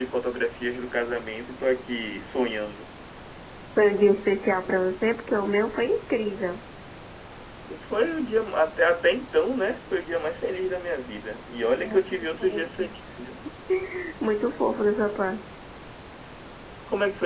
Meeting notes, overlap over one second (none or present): none